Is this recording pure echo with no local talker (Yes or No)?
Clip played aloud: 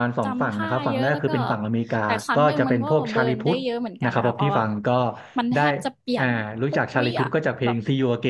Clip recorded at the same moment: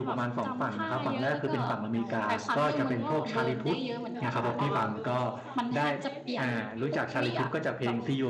No